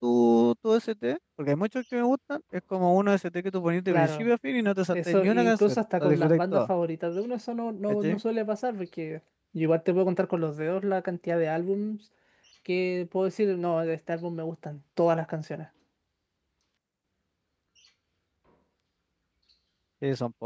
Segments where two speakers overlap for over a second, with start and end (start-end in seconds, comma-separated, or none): 4.9-6.7